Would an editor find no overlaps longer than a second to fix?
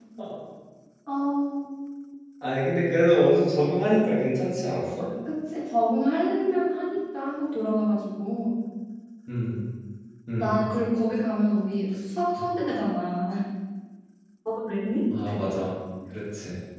Yes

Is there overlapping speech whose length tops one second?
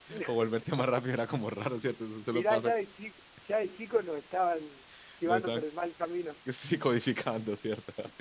No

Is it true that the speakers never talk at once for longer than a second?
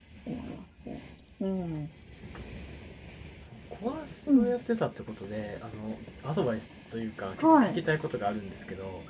Yes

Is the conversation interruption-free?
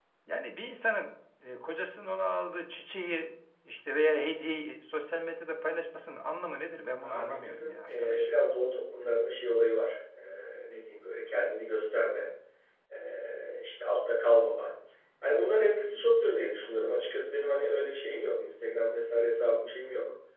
No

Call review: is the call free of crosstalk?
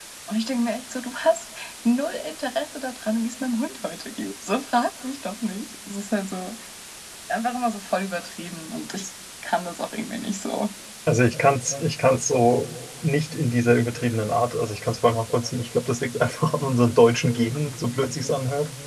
Yes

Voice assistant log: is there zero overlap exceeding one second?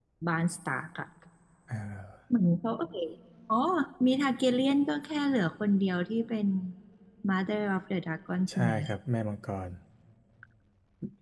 Yes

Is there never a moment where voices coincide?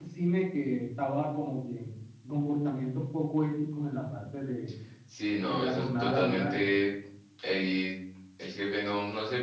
No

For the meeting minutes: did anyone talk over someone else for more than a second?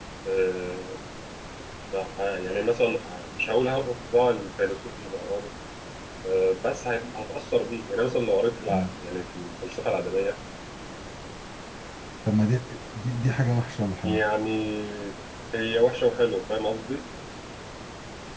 No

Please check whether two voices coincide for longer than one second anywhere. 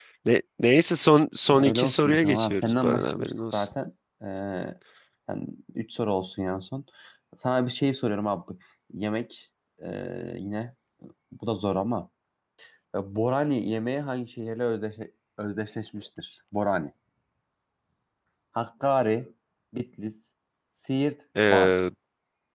Yes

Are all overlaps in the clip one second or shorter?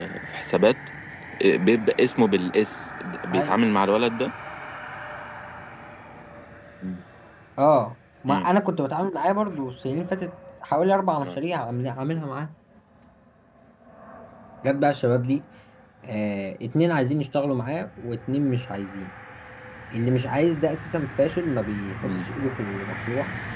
Yes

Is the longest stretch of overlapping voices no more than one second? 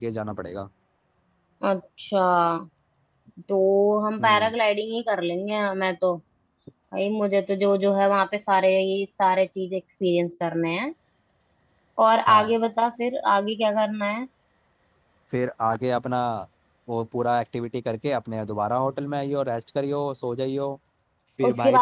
Yes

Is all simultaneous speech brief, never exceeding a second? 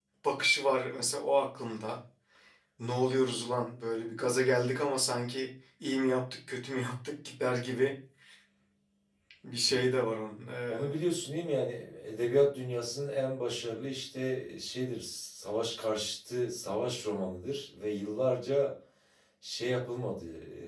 Yes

